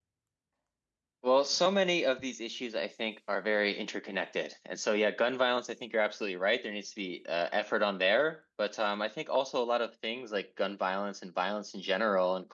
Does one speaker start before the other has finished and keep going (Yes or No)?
No